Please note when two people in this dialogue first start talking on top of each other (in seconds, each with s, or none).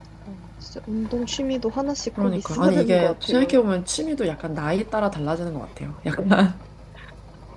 2.2 s